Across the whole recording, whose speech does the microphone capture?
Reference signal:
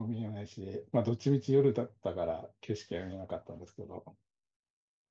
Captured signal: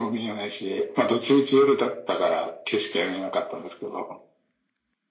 echo only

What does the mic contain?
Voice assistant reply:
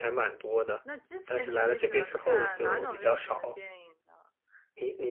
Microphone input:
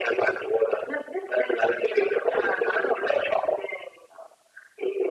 echo only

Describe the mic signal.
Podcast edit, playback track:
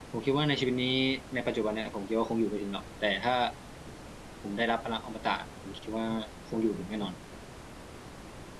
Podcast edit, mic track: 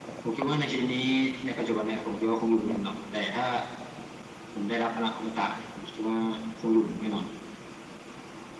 echo only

